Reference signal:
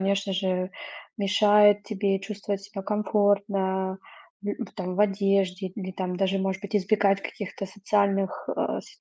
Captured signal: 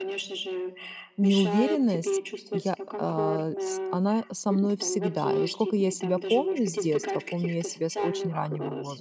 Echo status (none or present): present